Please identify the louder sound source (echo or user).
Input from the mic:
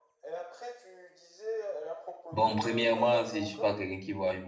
user